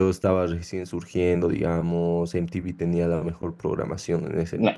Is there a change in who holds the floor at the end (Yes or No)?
Yes